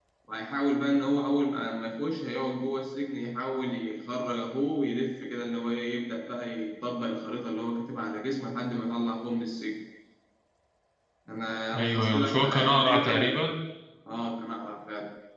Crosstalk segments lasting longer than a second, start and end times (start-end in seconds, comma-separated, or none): 11.7-13.4